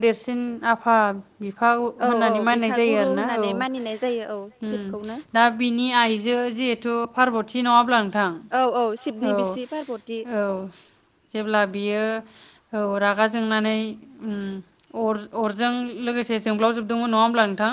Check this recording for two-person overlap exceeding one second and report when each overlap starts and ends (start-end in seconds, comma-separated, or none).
2.0-3.5